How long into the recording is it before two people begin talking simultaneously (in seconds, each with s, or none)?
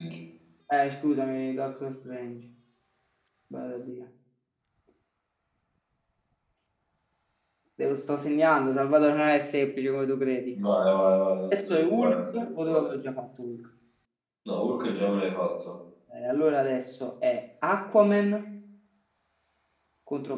11.5 s